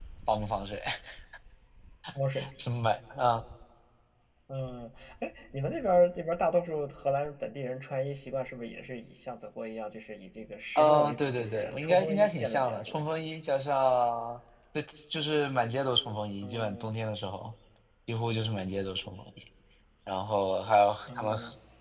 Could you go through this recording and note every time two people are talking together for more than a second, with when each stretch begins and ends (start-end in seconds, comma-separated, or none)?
10.8-13.0